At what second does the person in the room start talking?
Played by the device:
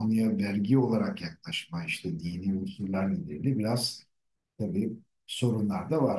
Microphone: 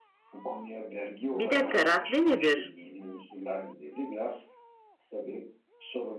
1.3 s

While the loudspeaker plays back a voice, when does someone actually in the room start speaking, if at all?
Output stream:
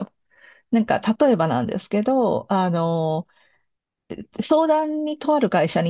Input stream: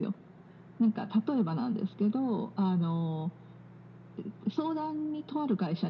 none

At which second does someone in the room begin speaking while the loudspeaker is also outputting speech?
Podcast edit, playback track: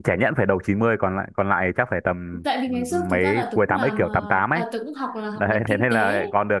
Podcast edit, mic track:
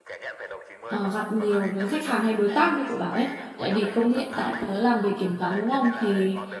0.9 s

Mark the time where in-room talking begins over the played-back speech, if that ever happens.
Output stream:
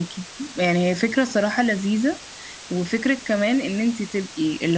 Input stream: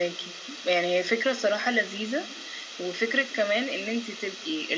none

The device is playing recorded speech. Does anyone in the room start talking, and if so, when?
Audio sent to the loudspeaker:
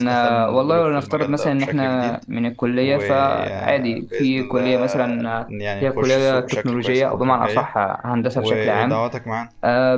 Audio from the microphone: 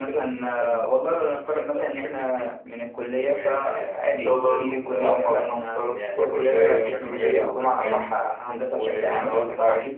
4.1 s

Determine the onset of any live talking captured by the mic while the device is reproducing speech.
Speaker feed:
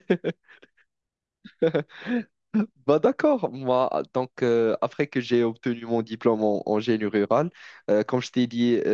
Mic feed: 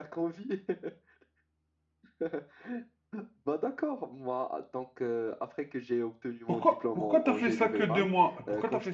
6.5 s

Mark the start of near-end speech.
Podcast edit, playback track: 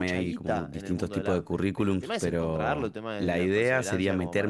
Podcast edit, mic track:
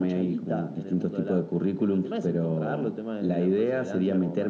none

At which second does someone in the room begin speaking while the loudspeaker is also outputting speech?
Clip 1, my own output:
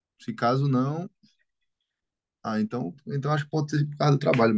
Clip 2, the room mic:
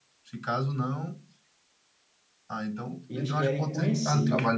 3.1 s

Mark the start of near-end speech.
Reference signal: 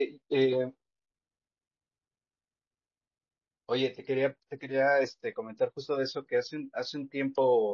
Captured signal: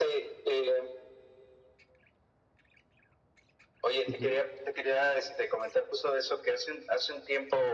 4.1 s

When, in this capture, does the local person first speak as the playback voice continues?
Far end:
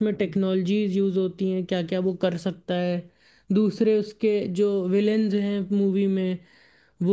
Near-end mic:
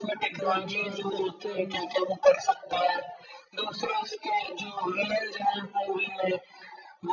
0.4 s

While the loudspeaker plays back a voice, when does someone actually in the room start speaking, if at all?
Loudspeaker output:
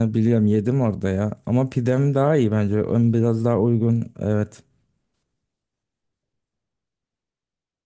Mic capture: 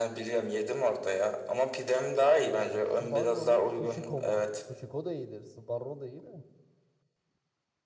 2.3 s

